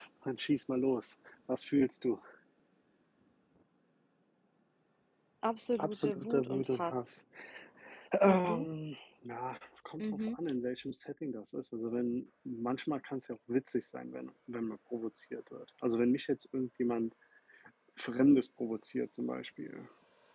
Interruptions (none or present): present